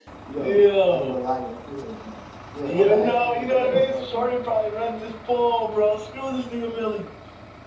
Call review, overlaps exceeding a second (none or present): present